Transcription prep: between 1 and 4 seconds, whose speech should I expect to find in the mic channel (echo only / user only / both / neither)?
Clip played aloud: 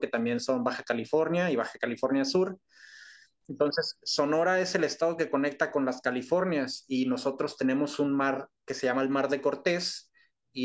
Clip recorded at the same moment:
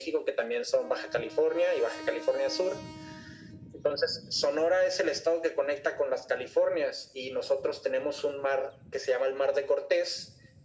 echo only